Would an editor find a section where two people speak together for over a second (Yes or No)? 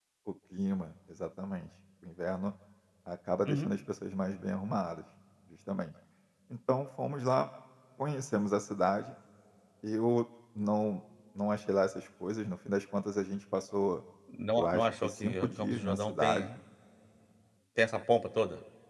Yes